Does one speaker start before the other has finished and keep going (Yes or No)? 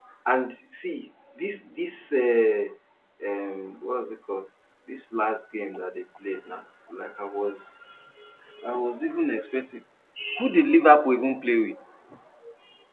No